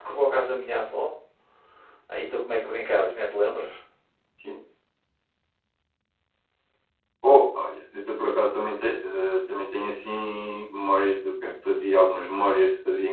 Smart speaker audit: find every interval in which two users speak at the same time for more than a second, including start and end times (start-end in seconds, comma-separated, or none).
none